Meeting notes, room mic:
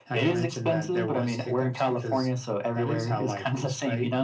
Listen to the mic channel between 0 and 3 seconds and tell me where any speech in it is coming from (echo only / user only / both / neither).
echo only